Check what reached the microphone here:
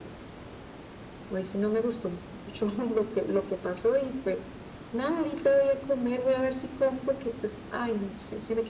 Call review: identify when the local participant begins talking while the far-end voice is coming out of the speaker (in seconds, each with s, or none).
none